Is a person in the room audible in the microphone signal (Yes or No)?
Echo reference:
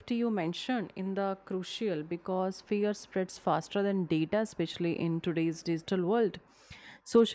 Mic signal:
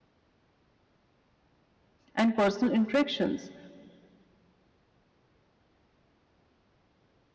Yes